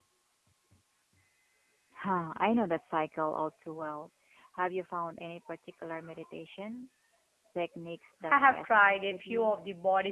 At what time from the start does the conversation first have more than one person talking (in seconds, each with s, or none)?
8.3 s